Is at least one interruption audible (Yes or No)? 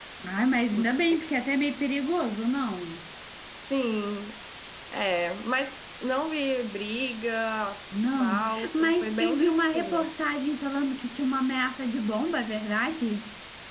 Yes